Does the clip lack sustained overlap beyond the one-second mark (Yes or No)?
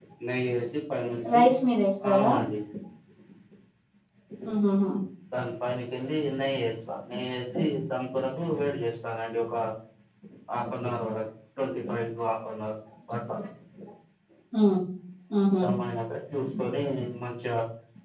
Yes